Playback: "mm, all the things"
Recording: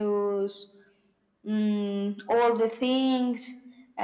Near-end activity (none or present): none